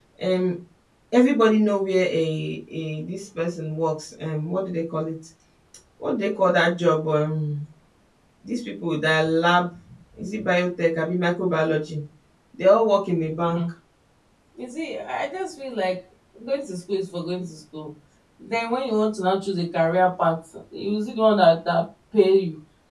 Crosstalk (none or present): none